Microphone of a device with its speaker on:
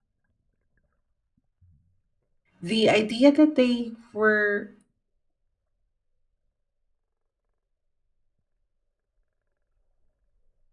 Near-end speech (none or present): present